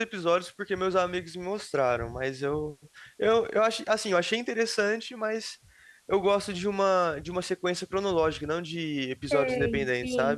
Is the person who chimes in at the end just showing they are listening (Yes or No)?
No